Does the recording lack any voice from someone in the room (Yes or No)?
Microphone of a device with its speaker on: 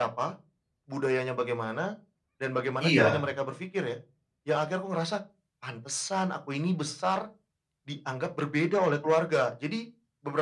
No